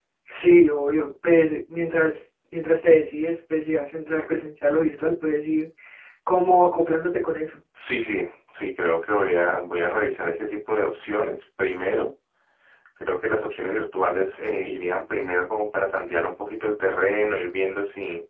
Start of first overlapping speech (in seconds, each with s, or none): none